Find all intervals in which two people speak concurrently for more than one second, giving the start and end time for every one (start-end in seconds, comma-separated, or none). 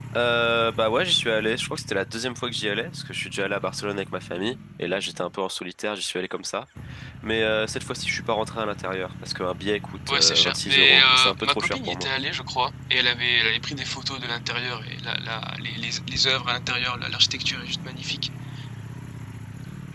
10.1-12.1